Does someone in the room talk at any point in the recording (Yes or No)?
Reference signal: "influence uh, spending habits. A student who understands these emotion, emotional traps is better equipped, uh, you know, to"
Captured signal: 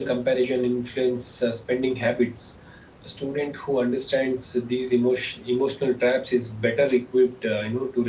No